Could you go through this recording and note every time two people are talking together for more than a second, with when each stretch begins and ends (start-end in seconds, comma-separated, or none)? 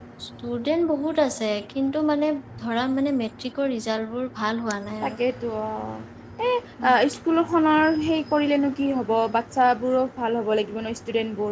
none